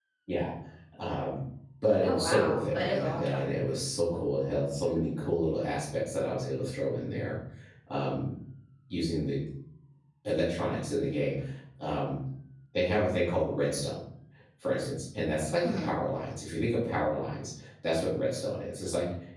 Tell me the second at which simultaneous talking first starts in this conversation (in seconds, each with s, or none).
2.0 s